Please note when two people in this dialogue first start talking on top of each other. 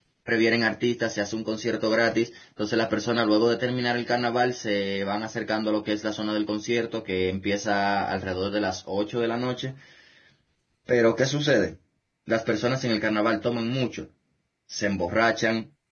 none

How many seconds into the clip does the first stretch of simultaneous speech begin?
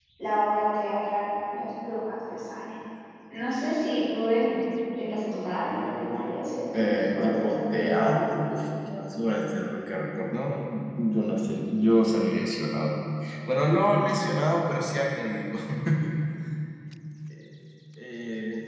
6.7 s

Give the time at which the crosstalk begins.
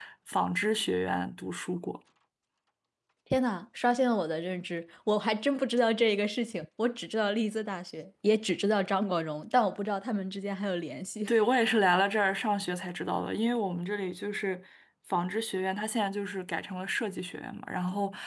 none

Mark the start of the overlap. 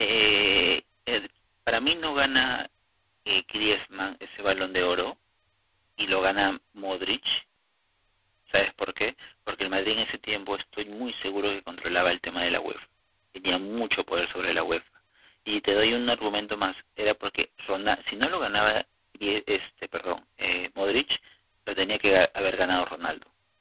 none

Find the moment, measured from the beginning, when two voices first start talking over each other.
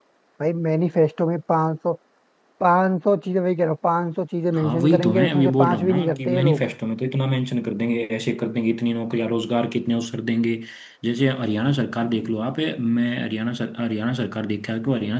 4.5 s

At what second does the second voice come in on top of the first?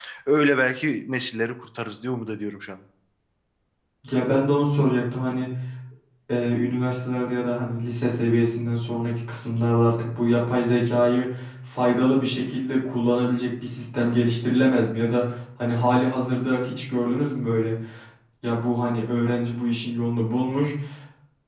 none

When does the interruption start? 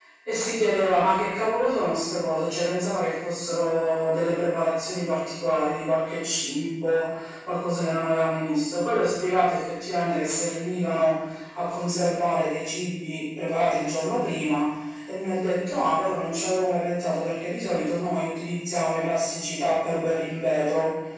none

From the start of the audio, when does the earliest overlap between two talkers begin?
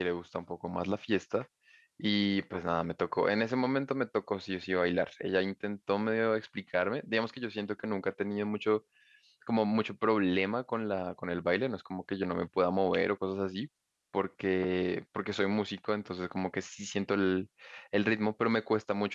none

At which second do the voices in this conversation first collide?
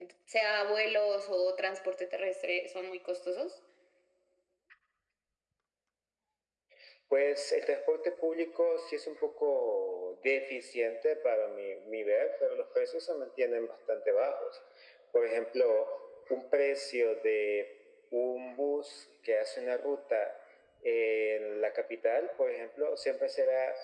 none

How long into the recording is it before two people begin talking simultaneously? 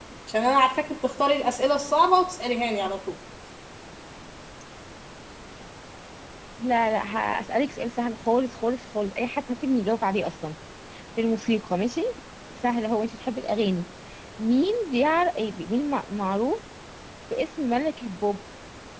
none

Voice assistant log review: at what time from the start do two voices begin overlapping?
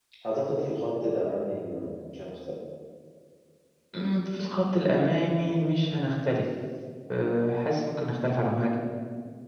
none

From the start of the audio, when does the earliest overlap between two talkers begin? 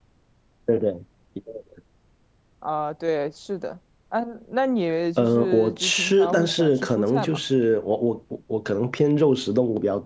5.2 s

